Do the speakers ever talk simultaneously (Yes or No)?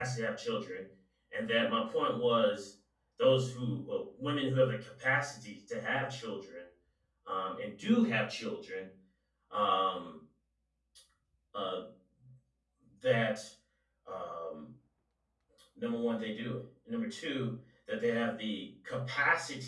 No